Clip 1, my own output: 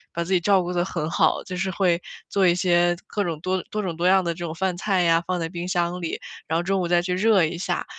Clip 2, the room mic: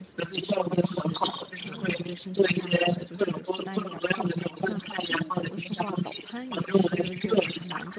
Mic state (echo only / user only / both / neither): both